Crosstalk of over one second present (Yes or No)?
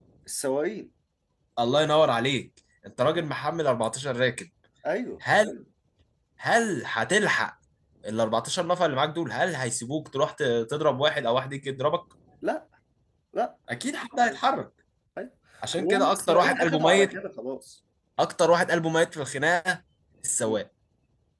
Yes